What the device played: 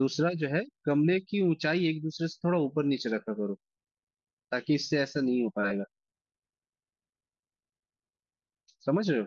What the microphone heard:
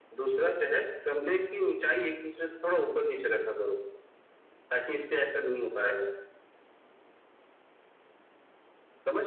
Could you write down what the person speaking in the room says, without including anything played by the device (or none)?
none